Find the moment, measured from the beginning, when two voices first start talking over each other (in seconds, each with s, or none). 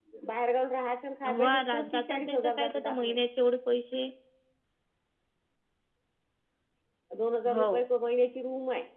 1.4 s